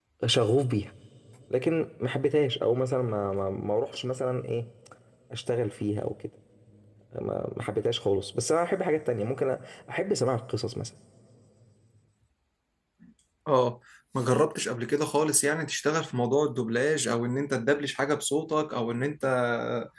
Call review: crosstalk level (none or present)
none